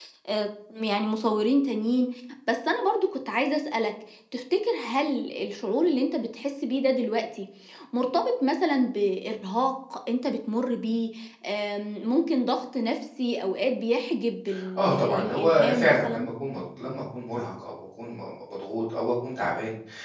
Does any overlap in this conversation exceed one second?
Yes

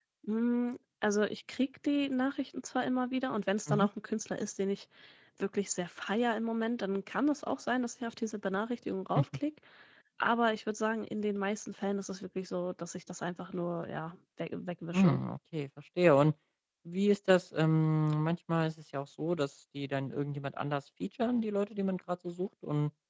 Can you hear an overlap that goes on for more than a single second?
No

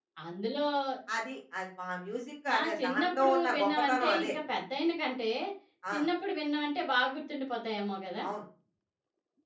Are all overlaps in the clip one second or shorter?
No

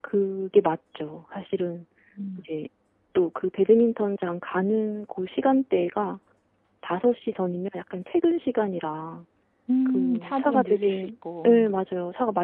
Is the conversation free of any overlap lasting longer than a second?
No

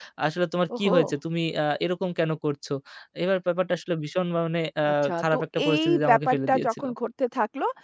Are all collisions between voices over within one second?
No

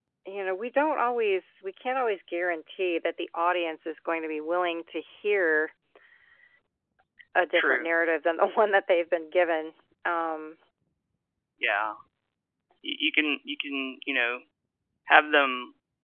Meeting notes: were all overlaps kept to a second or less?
Yes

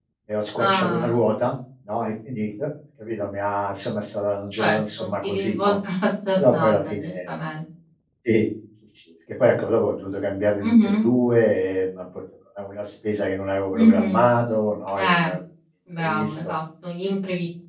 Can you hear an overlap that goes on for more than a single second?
Yes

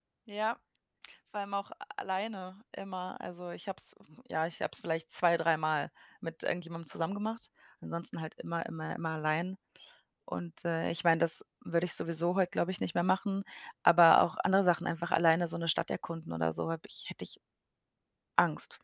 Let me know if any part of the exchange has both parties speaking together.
No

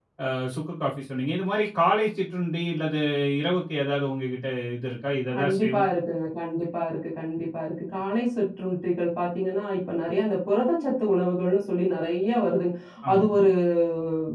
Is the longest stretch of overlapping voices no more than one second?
Yes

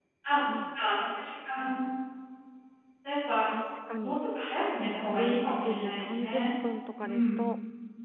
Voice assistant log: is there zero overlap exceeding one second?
No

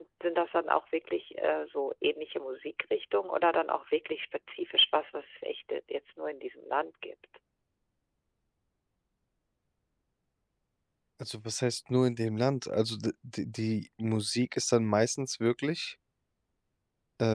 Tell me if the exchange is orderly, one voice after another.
Yes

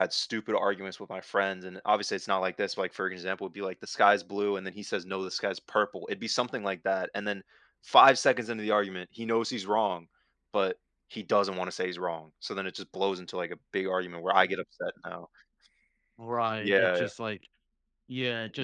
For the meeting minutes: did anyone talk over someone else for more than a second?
No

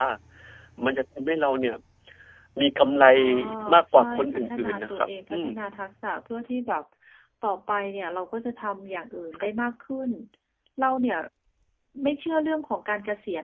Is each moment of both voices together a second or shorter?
No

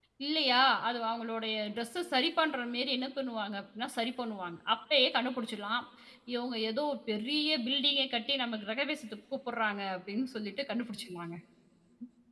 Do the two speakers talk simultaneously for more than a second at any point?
No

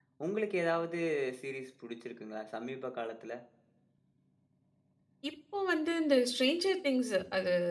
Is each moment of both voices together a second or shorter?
Yes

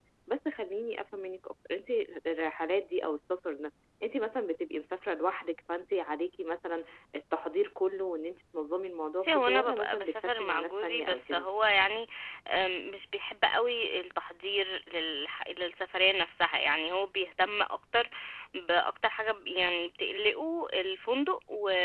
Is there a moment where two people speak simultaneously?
Yes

